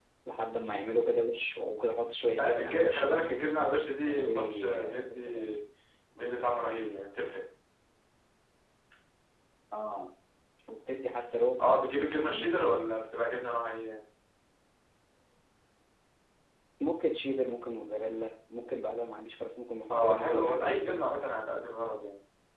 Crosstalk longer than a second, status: present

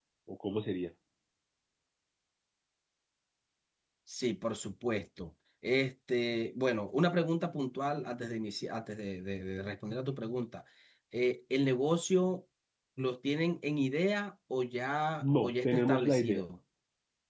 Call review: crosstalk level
present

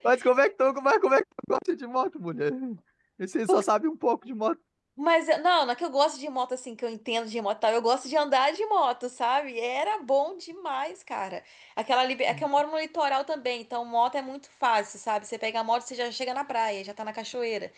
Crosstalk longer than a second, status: none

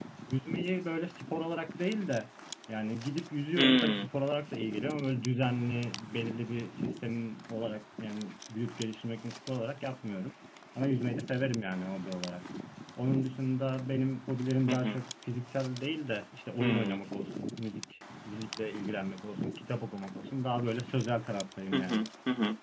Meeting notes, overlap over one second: none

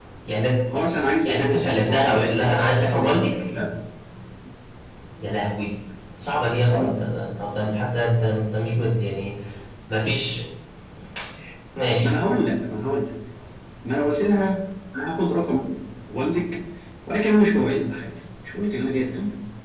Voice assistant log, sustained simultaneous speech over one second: present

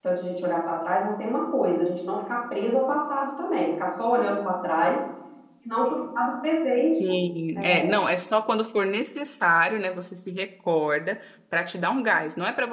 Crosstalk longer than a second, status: none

